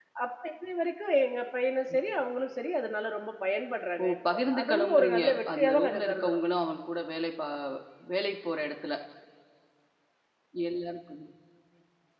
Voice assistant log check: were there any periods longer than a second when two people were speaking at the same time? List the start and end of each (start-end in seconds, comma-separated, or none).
4.0-6.4